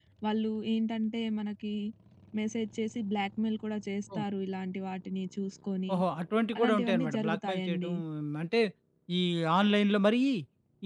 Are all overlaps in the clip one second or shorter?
No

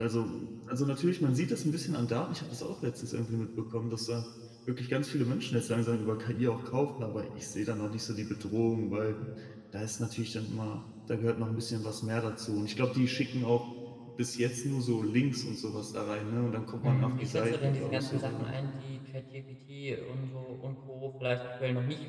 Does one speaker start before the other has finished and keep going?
Yes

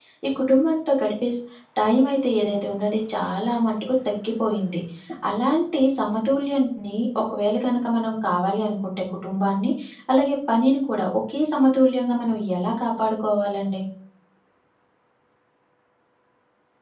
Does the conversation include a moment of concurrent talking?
No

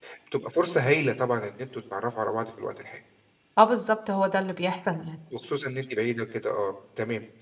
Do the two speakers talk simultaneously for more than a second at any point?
No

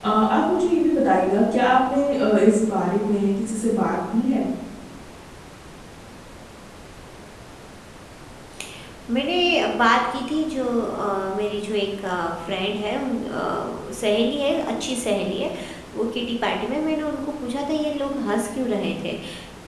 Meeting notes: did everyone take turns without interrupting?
Yes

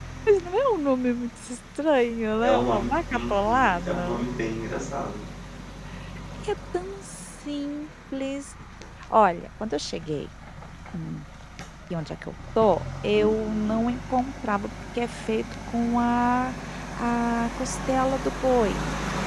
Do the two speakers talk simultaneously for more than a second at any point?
Yes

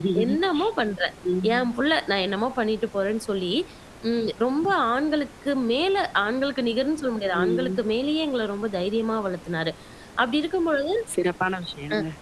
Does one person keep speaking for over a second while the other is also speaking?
No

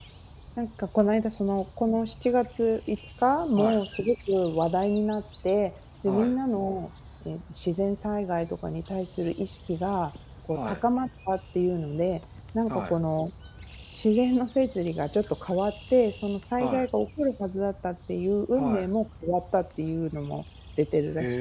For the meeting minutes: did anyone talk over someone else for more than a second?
No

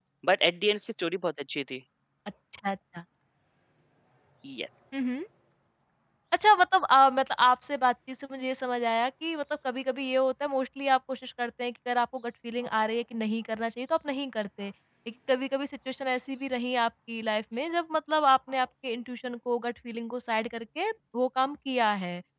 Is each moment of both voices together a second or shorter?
Yes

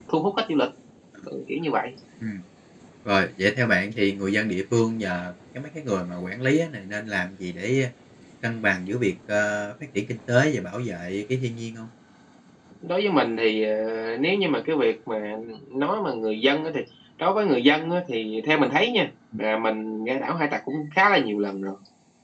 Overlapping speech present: No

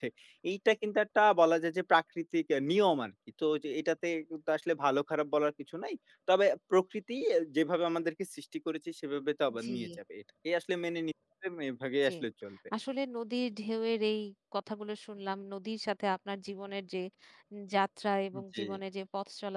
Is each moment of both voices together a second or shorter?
Yes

